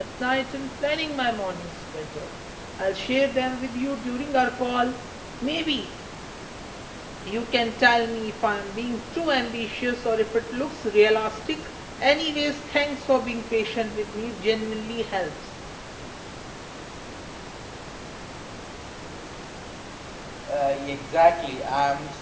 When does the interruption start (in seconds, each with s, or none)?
none